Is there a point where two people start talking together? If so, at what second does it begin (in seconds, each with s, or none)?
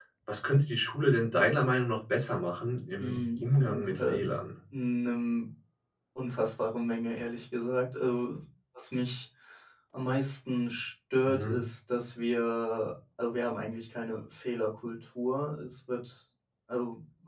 3.0 s